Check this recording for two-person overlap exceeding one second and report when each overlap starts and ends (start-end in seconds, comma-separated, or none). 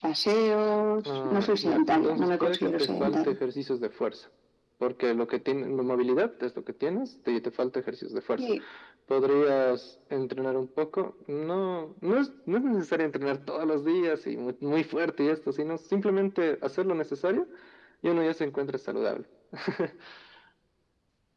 1.2-3.4